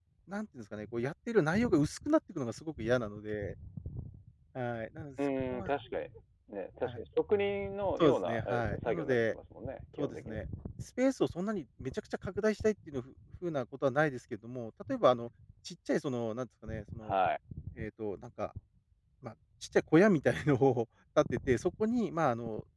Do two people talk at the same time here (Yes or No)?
Yes